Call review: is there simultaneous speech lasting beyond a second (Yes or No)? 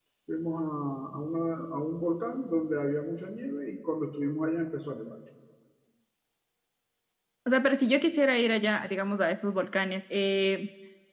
No